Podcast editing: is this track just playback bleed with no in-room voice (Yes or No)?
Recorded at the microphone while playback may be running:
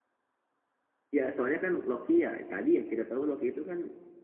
No